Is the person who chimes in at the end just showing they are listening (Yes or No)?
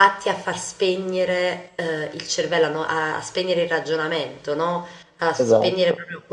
Yes